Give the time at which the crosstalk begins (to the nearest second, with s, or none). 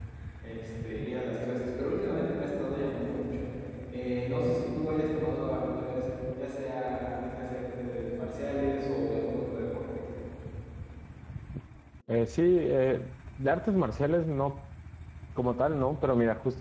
none